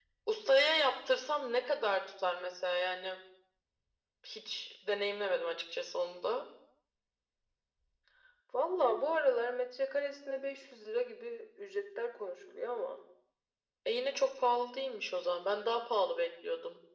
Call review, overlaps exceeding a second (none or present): none